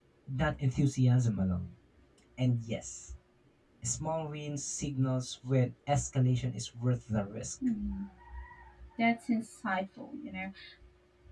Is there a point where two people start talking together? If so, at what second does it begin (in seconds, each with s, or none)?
none